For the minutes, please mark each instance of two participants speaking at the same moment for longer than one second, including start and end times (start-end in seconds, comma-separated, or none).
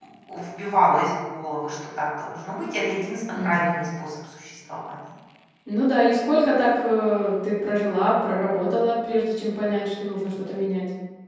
none